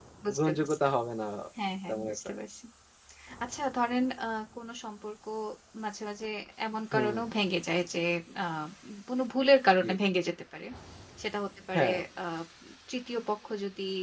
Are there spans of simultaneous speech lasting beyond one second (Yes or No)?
No